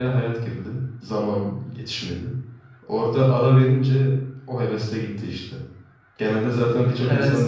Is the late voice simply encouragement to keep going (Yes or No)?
No